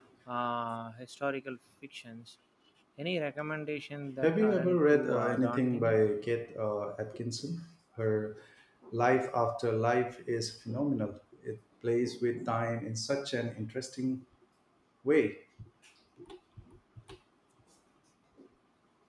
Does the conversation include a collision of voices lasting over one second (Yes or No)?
Yes